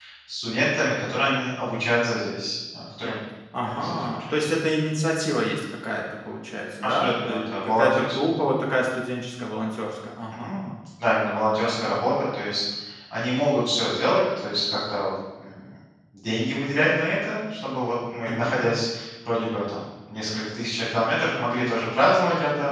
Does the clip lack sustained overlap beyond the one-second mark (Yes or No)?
No